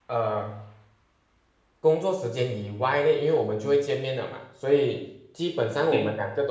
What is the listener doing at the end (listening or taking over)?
listening